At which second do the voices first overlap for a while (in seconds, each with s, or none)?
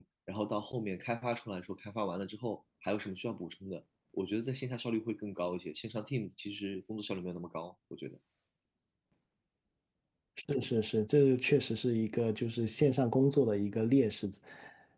none